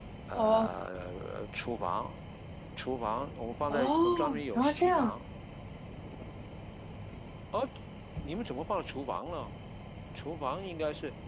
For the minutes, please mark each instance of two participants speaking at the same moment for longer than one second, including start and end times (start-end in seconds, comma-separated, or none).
3.7-5.1